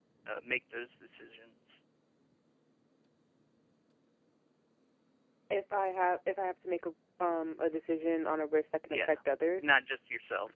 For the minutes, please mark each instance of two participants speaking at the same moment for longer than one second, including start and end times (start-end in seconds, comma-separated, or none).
none